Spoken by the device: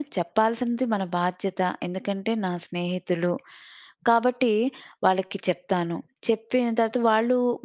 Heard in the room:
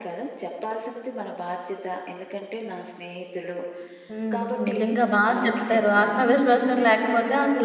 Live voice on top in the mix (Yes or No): Yes